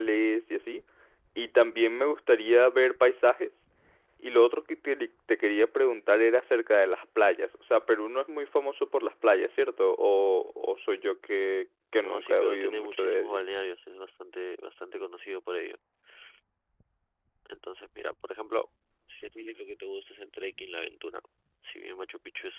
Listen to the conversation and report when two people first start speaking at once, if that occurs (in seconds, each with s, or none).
12.0 s